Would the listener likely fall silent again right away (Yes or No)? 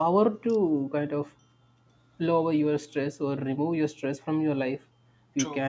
Yes